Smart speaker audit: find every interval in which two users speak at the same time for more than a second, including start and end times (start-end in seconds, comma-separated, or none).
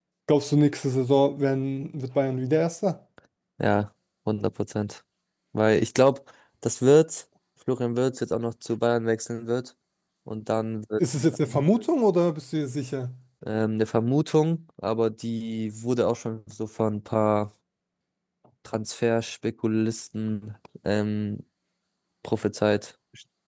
none